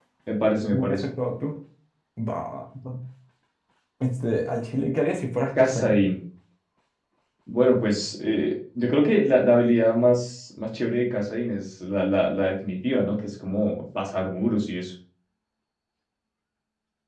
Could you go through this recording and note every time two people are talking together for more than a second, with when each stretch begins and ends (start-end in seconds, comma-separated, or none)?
none